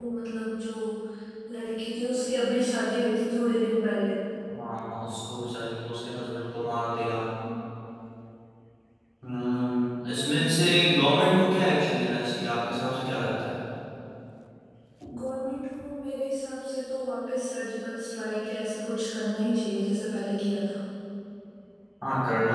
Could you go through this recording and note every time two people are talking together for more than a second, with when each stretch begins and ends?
10.0-11.3

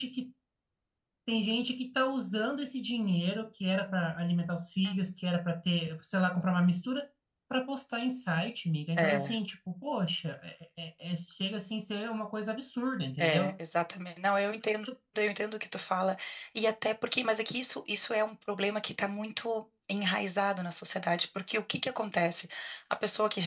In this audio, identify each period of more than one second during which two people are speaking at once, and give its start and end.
none

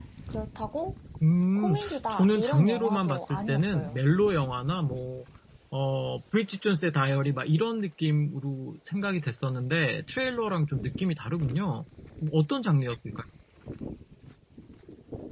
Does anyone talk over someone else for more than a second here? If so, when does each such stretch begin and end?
1.6-4.0

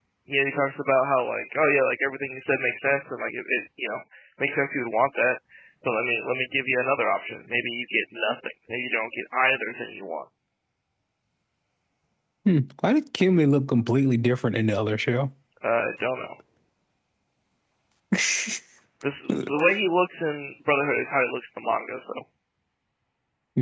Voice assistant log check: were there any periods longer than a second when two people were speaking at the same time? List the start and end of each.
none

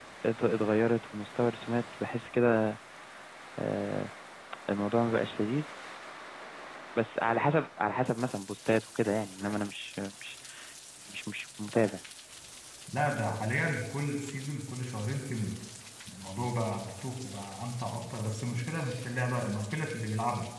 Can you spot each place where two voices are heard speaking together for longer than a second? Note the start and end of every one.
none

